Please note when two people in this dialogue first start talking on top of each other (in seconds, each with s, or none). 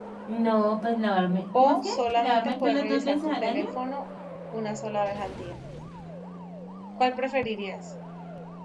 1.5 s